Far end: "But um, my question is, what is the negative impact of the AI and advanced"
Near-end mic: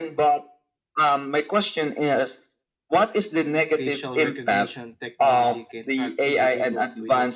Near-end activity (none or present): present